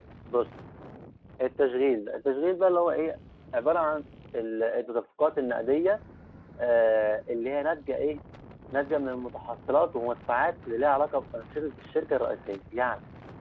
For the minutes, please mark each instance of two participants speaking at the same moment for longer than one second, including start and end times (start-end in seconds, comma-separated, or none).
none